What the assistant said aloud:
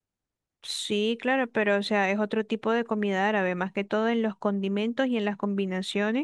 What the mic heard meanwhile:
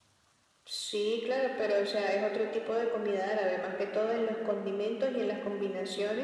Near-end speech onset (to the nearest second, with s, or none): none